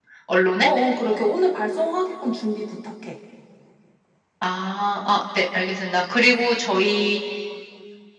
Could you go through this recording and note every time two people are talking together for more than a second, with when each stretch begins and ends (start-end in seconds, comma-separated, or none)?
none